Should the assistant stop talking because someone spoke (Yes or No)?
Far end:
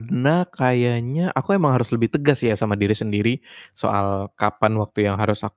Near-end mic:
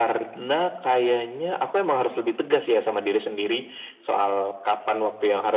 No